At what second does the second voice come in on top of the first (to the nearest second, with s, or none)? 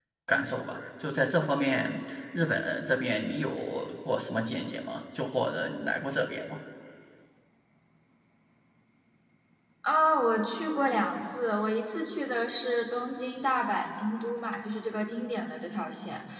none